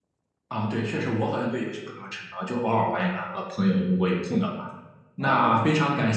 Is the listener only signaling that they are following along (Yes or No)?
Yes